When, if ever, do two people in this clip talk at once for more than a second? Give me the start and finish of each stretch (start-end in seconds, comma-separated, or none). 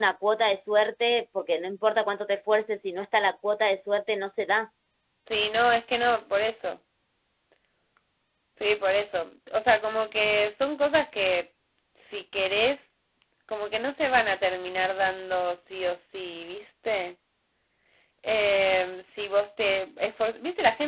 none